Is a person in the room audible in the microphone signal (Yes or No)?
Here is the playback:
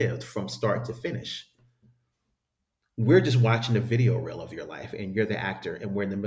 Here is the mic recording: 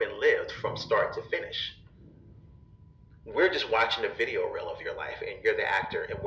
No